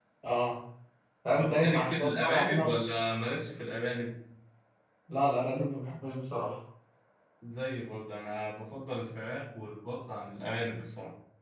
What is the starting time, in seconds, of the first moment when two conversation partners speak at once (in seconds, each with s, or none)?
1.4 s